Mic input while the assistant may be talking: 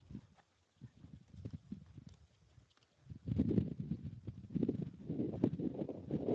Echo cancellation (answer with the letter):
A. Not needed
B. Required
A